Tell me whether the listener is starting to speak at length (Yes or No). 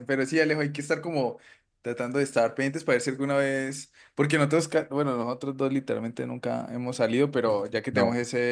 No